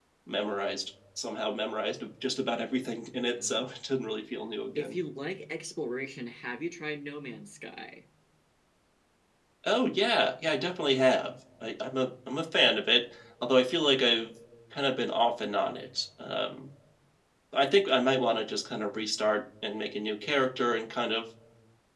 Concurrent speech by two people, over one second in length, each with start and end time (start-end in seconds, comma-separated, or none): none